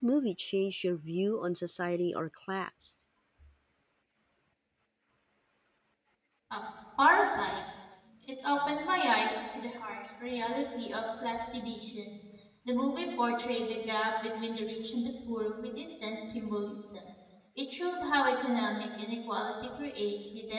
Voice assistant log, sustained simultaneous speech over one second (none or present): none